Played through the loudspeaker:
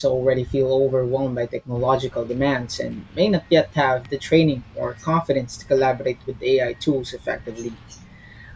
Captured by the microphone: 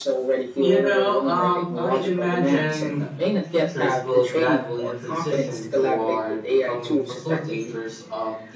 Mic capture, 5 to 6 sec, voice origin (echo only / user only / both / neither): both